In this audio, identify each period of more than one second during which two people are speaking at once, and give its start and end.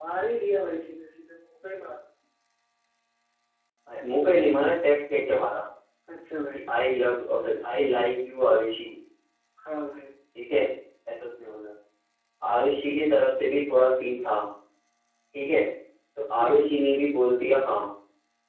none

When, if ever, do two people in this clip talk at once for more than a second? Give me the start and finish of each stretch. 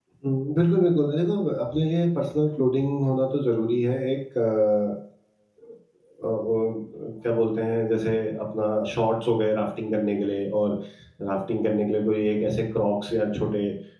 none

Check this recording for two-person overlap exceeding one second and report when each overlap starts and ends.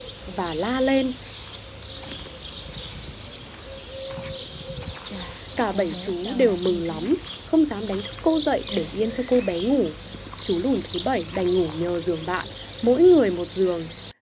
5.7-7.1

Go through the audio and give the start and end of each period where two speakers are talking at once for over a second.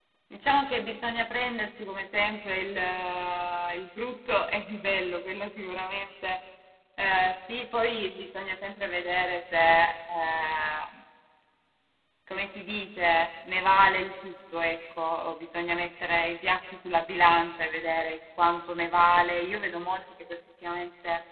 none

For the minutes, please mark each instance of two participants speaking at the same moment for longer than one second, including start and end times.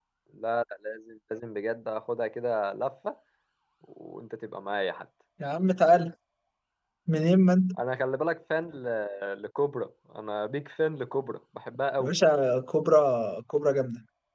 none

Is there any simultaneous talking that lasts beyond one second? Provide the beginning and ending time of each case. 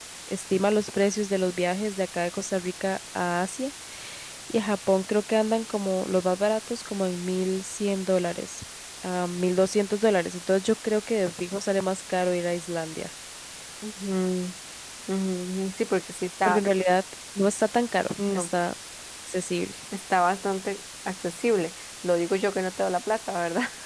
none

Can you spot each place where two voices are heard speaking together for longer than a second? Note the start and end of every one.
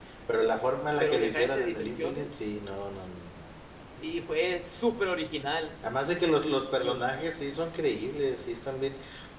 1.0-2.3

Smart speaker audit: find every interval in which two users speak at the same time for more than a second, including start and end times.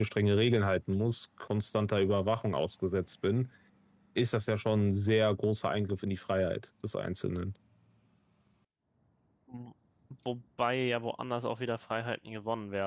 none

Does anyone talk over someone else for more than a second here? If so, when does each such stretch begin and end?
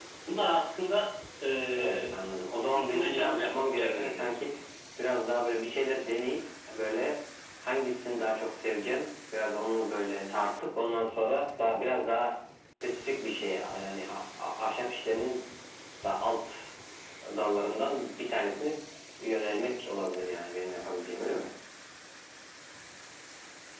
2.7-4.2

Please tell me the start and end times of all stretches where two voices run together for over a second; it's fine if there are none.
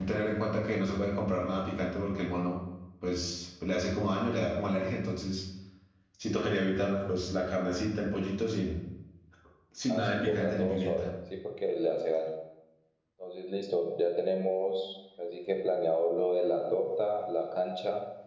9.9-11.1

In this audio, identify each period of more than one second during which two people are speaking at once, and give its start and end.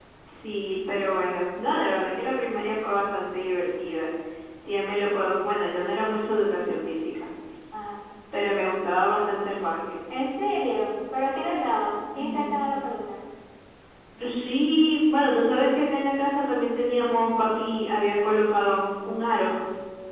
none

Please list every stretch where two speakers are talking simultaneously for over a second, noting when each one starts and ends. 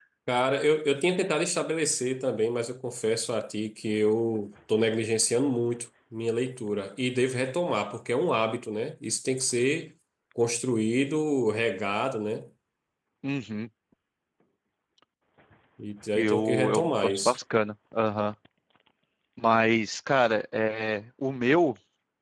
16.2-17.4

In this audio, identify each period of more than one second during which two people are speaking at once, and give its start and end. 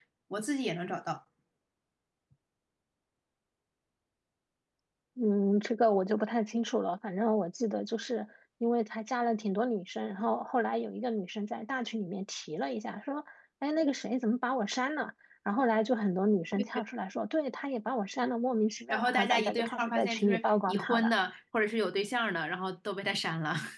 18.9-21.2

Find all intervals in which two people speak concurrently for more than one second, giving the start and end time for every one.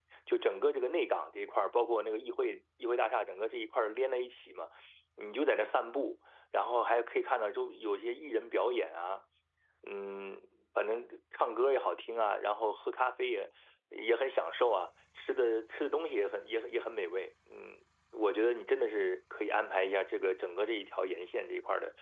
none

